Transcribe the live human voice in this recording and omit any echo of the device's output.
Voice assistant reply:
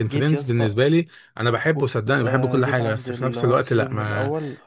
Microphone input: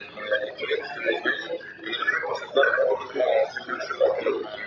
none

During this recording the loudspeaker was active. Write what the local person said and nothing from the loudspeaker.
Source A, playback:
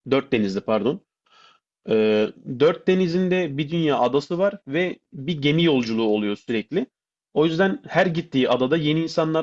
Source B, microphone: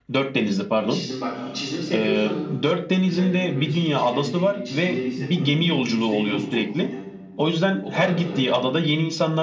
Çizim bak çizim seviyorsan özellikle böyle seni çeken şey çizimleri ise bunu %100 okumalısın ya. O kadar güzel yani.

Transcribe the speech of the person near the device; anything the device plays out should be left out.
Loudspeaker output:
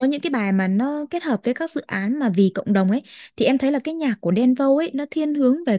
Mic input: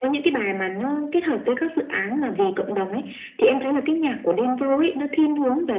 none

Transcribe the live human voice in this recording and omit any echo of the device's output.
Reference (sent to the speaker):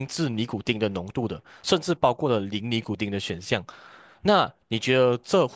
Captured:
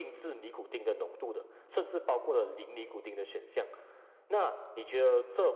none

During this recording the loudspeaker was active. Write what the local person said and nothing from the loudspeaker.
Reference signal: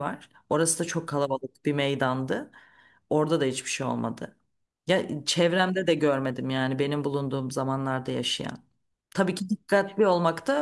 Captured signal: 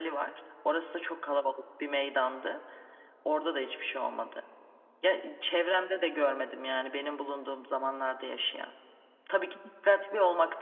none

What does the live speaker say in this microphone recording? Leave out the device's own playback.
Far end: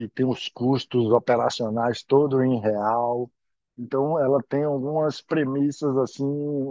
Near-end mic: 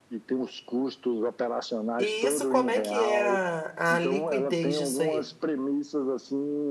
E isso, como é que é a, a liquidez disso aí?

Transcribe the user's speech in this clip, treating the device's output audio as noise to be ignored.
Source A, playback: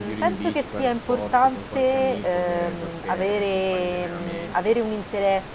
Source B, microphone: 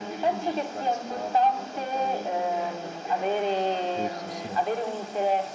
Giusto, sì,

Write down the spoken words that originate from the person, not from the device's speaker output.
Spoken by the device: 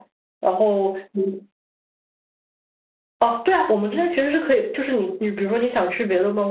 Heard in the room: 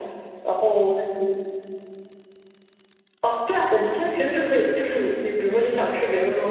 none

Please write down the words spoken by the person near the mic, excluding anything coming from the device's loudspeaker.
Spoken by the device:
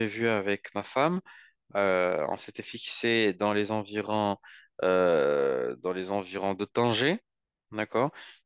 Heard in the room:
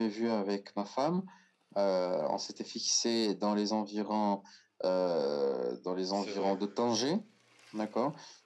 c'est vrai.

